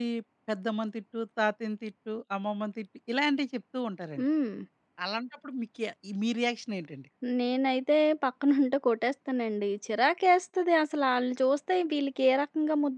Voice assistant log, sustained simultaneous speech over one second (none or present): none